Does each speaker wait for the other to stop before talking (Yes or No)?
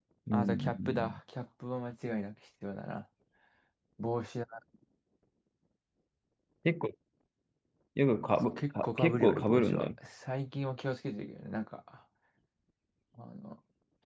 No